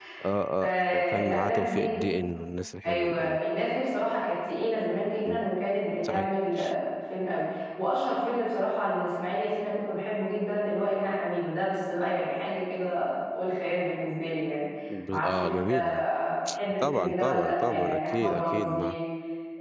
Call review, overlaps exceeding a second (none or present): present